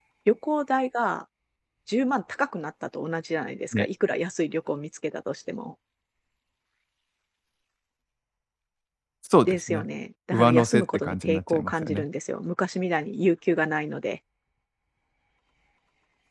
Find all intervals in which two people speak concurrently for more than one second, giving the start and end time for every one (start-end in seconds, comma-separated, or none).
10.3-12.1